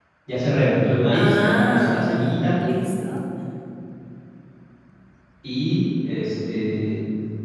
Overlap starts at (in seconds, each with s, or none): 1.1 s